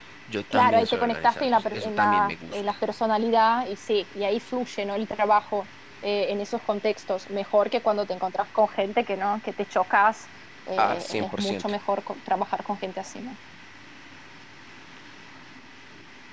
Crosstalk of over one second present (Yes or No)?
Yes